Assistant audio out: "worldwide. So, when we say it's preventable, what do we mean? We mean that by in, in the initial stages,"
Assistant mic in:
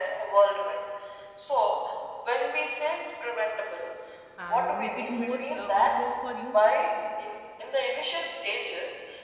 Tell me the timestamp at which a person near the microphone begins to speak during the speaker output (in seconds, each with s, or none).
4.4 s